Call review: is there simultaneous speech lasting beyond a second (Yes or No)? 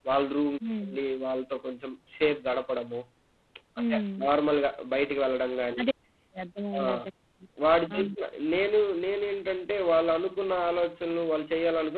No